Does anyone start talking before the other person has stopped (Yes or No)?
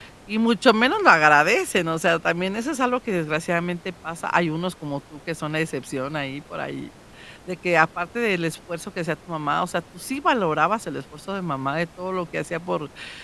No